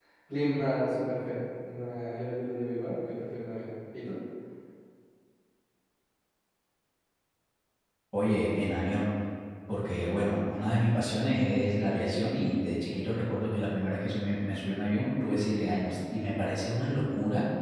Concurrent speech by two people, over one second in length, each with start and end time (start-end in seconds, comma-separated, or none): none